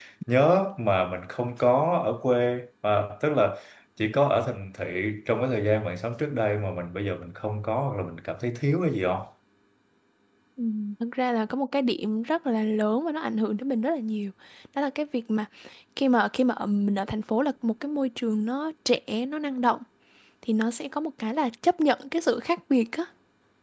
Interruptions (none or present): none